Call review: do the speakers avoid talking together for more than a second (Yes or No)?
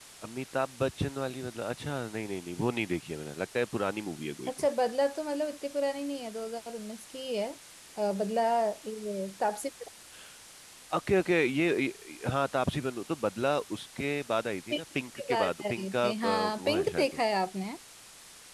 No